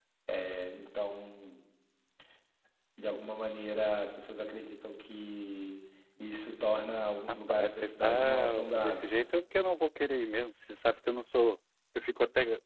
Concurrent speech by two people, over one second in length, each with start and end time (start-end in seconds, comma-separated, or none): 7.3-9.2